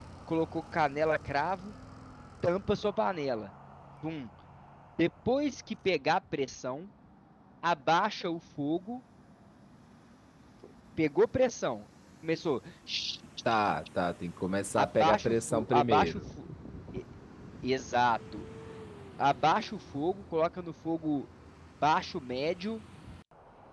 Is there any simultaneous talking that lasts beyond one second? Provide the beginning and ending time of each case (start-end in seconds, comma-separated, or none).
14.8-16.2